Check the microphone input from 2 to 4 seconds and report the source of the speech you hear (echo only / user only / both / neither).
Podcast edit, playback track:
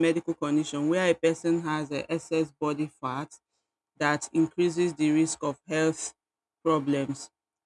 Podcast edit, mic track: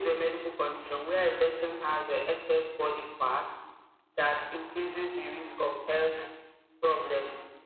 echo only